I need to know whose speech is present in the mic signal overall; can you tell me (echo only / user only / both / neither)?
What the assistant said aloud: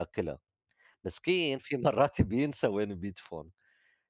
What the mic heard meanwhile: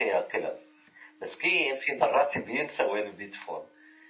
echo only